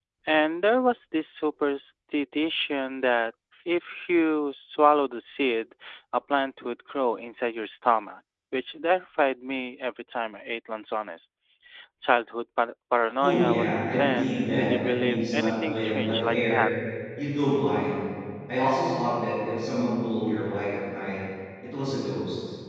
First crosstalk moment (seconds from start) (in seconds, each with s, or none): 13.2 s